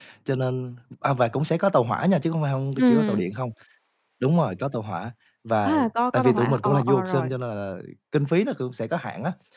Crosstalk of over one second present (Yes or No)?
Yes